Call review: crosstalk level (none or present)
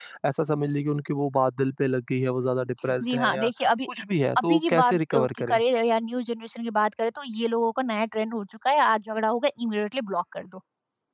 present